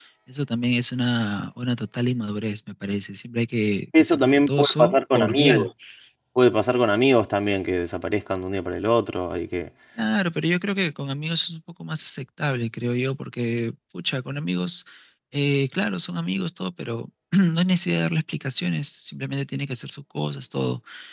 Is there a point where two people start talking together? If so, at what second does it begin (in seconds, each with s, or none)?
3.9 s